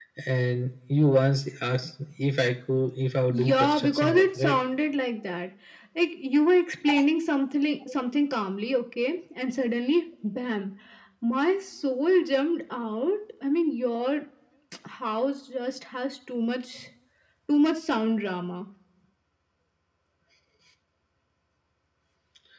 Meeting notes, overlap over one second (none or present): present